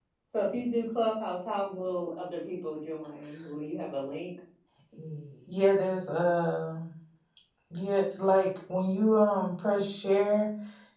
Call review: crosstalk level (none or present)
none